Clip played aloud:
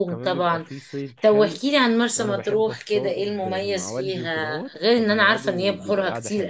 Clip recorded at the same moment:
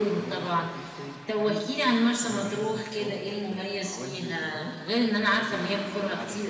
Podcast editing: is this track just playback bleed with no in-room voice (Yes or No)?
Yes